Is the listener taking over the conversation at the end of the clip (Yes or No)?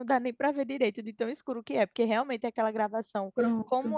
No